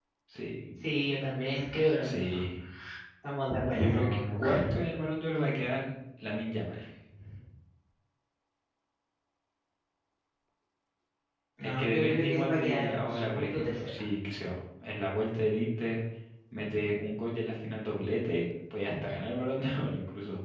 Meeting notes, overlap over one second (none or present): present